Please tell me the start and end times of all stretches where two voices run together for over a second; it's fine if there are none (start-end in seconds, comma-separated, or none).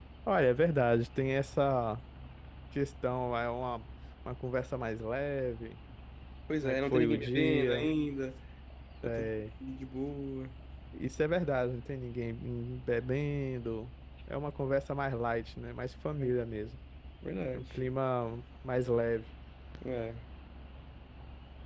6.6-7.9